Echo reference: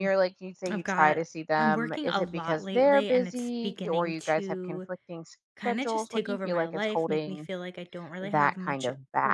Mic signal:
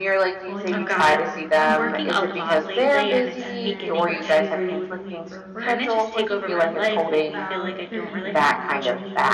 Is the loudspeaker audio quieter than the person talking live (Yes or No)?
No